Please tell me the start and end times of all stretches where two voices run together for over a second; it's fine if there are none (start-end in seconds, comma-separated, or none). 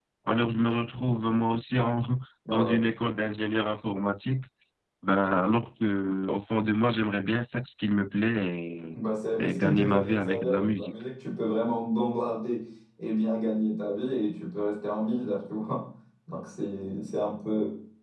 9.4-10.9